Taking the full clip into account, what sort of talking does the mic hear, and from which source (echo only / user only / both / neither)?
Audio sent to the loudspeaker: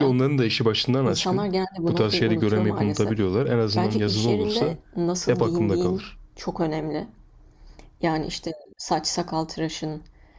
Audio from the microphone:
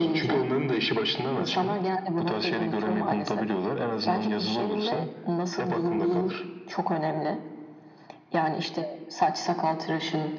echo only